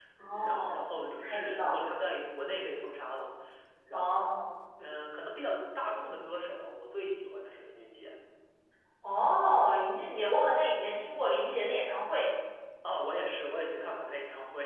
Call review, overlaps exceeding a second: present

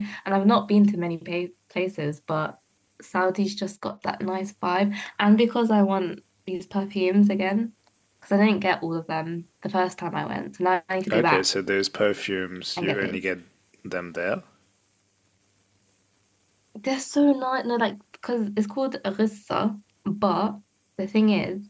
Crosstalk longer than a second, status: none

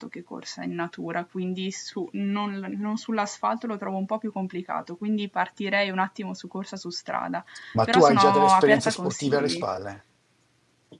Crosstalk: present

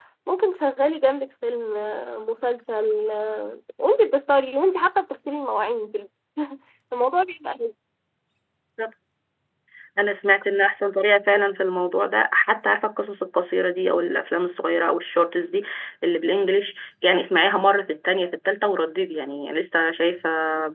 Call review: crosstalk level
none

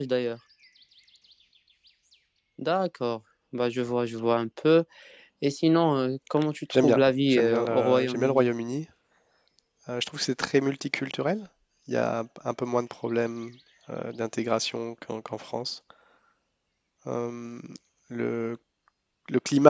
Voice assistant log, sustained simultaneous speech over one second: present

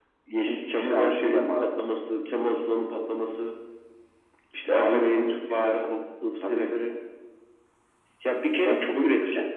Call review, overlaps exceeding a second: present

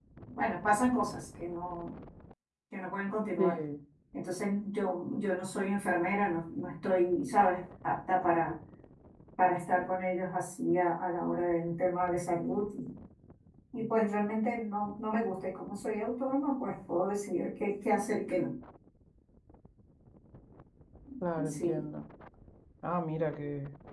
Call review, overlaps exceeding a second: none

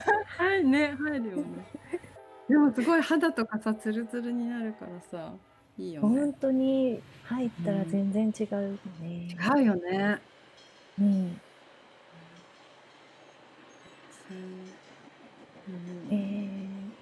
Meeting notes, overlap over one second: none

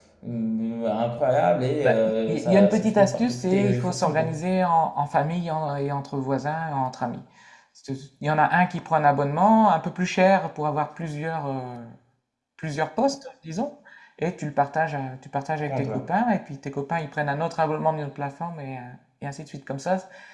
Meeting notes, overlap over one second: present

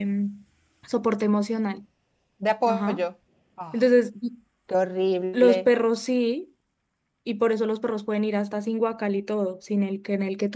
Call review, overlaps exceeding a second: none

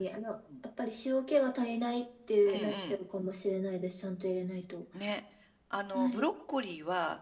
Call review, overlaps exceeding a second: none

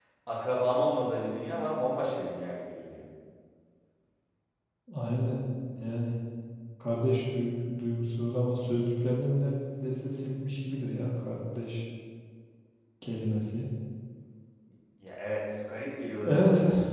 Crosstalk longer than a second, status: none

